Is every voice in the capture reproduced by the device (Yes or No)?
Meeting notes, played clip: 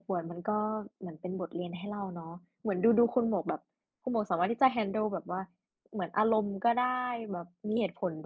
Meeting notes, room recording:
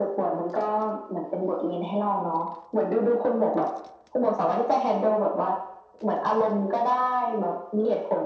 Yes